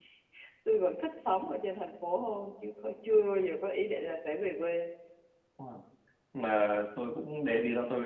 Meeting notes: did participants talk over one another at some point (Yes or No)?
No